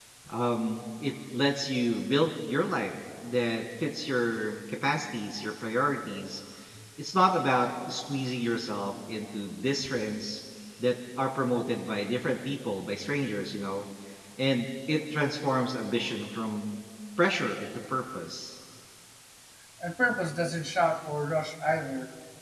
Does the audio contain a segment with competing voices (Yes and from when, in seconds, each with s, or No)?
No